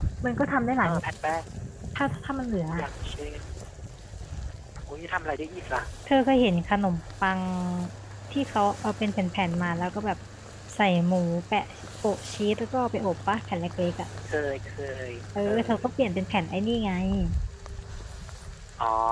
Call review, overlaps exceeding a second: none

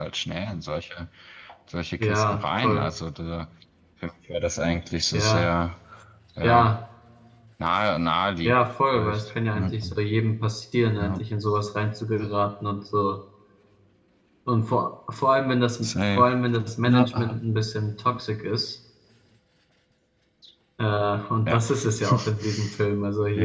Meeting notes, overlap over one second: present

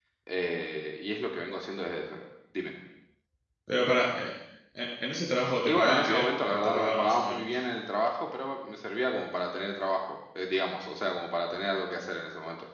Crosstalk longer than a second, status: present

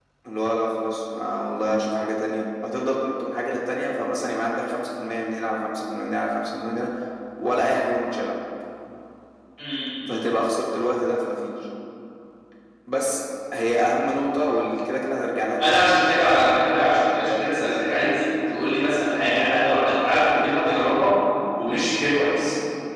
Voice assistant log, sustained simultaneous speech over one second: none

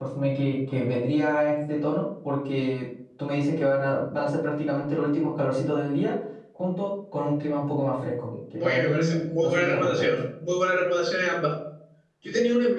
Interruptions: present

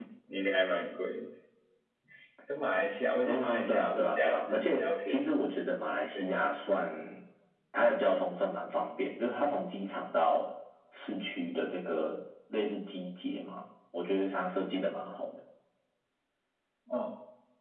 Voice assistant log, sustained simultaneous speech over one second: present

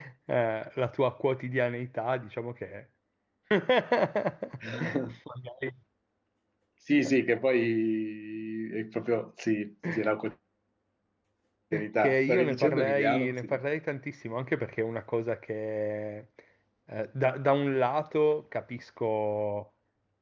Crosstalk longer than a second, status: present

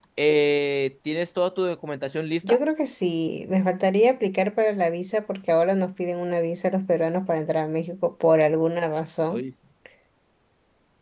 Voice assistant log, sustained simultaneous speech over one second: none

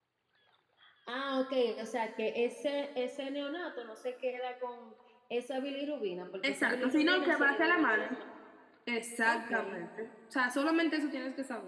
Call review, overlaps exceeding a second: present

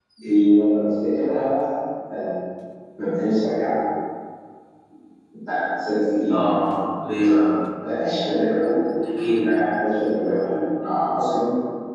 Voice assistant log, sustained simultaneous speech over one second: none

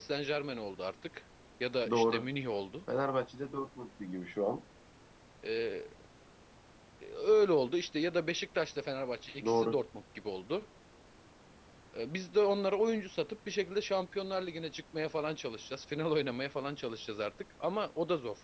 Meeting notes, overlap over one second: none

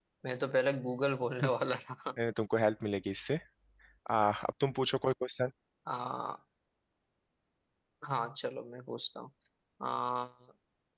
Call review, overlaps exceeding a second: none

